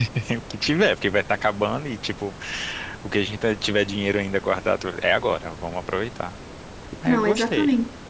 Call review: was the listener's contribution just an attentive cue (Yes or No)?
No